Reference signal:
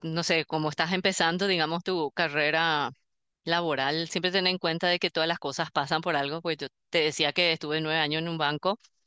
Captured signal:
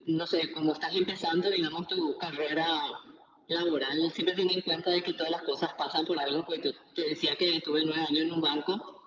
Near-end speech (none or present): none